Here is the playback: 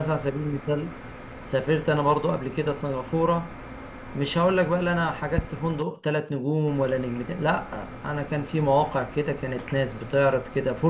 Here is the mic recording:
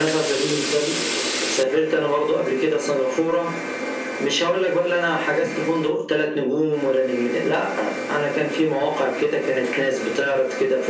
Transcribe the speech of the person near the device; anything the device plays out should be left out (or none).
none